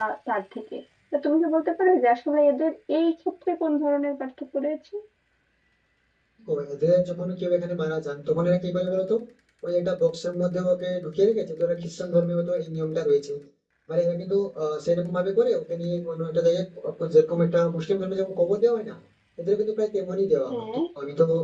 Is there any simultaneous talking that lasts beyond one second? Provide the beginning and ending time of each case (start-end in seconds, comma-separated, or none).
none